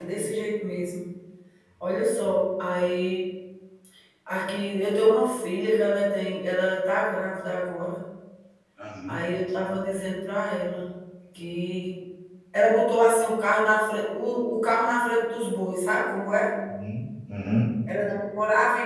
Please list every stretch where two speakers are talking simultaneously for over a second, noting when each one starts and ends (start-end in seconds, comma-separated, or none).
none